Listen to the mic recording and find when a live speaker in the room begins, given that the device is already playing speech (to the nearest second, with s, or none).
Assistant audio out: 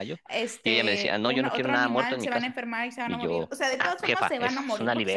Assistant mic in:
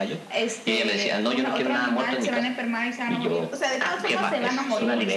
4 s